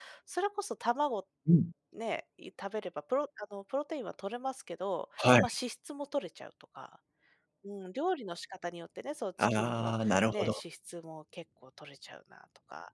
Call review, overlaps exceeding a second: present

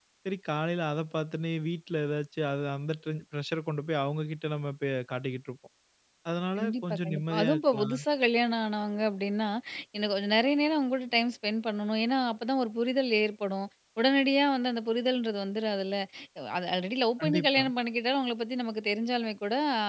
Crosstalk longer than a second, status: present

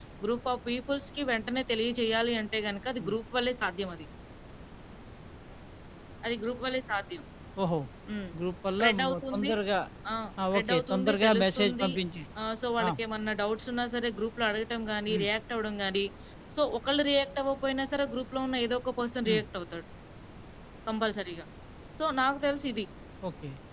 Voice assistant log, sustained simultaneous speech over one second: present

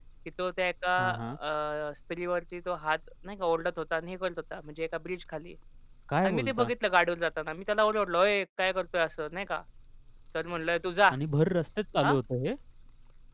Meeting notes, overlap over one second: none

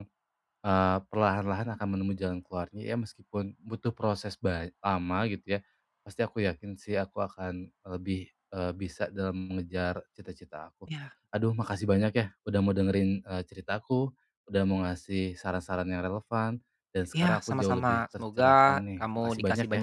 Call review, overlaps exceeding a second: present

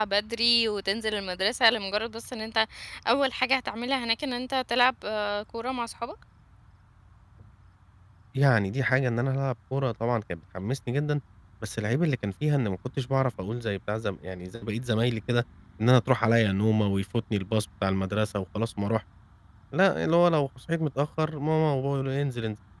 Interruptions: none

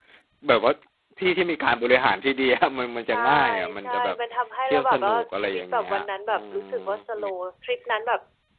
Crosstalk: present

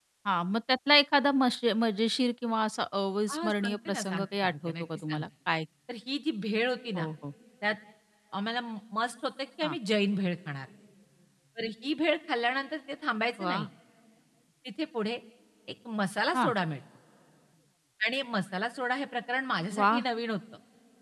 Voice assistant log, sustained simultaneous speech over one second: present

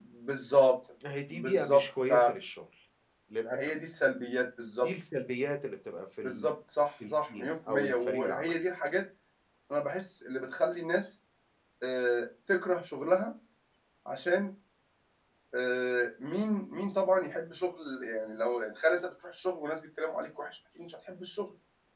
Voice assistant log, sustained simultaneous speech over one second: present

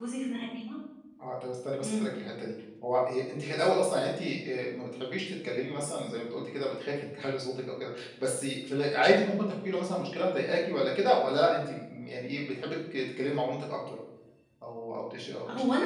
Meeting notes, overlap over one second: none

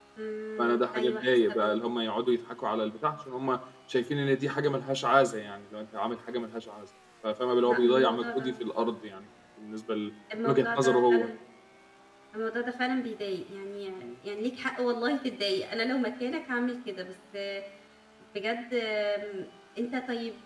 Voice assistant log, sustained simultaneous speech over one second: present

